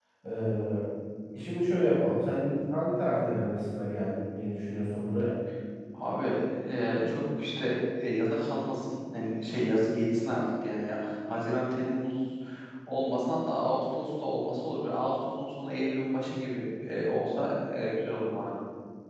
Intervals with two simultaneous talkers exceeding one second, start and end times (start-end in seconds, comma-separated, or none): none